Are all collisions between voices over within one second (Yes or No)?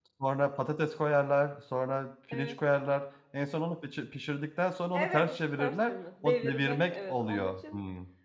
No